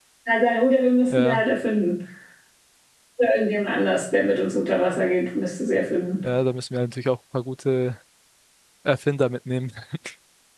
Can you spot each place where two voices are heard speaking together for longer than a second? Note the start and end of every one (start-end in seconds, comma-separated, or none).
none